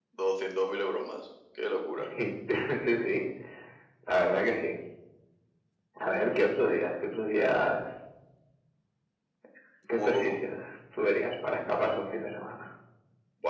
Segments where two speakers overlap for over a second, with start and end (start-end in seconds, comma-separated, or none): none